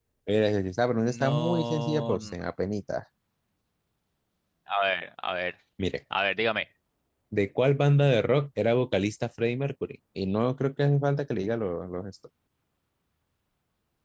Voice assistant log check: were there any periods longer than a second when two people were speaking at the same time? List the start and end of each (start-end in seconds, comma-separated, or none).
1.0-2.3